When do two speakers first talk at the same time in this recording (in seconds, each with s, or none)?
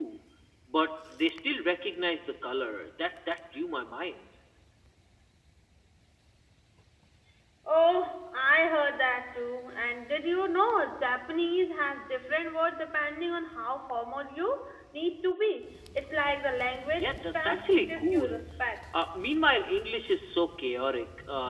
17.0 s